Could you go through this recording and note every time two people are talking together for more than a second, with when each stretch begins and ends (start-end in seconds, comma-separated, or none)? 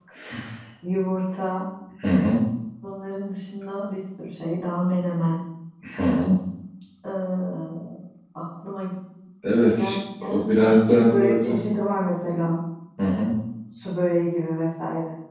9.8-11.6